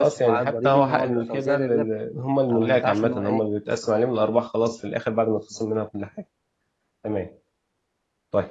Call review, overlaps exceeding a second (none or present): present